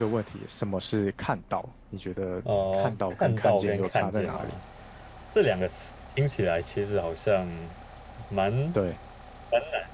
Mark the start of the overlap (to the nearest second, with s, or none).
2 s